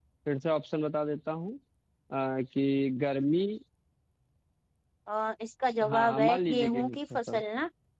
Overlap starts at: 5.9 s

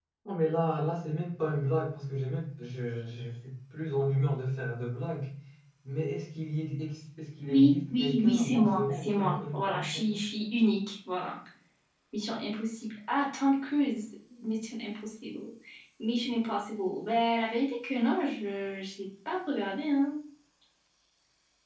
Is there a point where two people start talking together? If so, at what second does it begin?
7.5 s

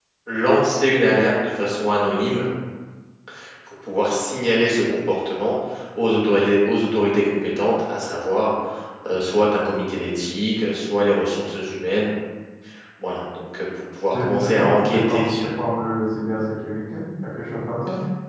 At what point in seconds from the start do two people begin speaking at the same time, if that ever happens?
14.1 s

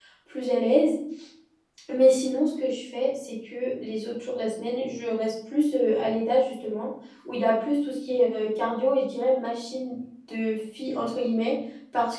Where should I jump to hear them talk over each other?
none

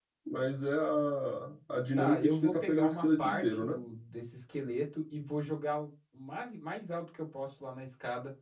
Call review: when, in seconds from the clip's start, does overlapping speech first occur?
2.0 s

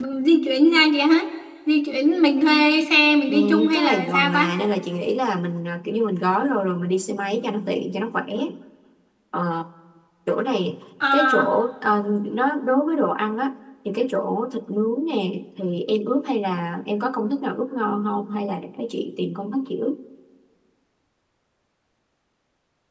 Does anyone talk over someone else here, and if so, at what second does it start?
3.3 s

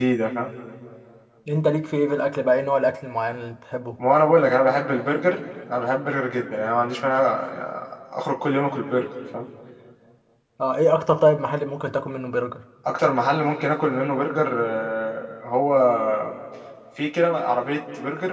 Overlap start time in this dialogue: none

